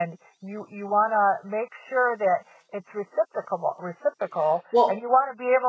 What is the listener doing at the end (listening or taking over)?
listening